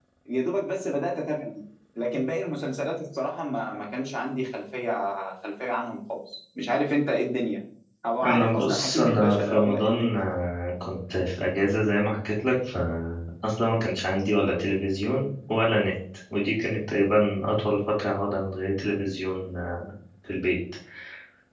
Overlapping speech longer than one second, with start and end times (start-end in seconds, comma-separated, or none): 8.2-10.1